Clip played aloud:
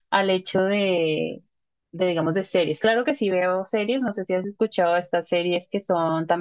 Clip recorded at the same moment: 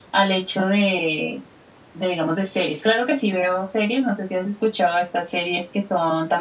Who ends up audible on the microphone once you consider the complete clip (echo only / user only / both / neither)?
echo only